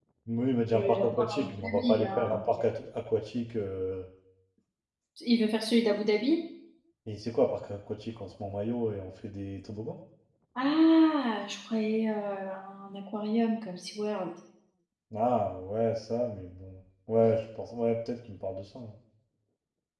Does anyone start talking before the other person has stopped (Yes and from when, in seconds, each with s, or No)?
Yes, from 0.7 s